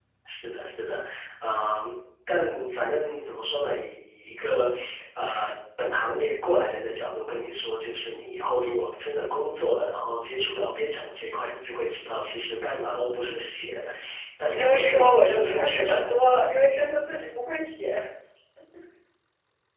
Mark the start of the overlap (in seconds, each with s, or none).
14.4 s